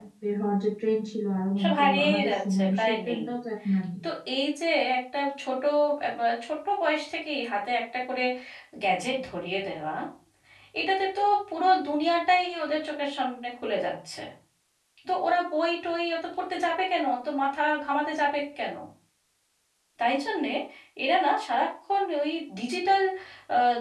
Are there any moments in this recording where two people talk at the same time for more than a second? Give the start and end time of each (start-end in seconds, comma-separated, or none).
1.6-3.2